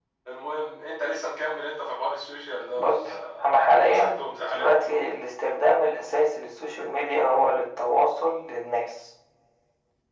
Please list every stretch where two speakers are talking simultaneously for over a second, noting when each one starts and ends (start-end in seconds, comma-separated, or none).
3.4-5.0